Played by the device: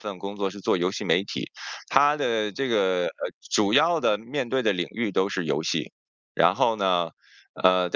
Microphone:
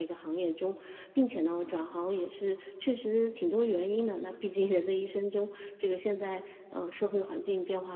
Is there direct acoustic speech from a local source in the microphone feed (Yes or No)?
Yes